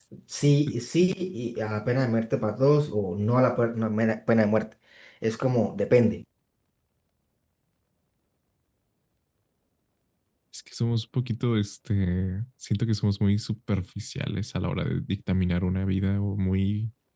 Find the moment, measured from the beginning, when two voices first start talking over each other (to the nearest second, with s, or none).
none